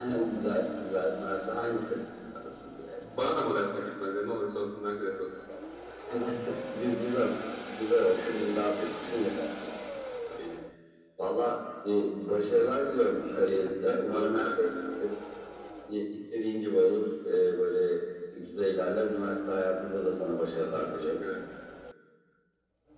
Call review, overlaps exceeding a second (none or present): present